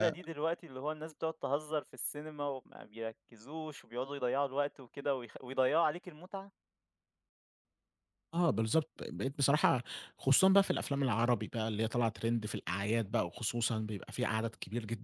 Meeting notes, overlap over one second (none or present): none